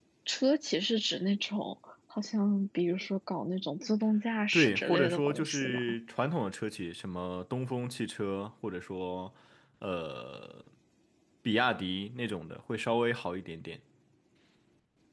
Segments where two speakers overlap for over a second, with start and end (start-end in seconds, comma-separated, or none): 4.5-5.8